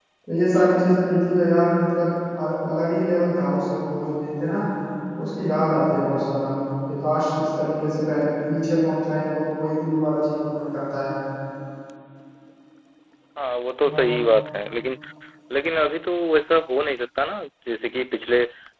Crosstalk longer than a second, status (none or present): none